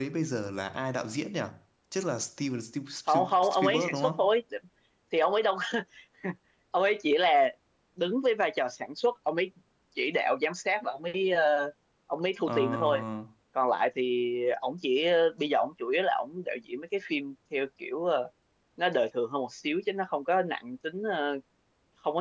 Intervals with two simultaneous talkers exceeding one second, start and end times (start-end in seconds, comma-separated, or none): 3.1-4.3